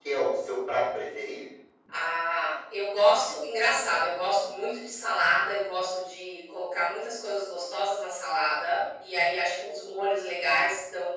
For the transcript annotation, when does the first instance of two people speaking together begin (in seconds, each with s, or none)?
none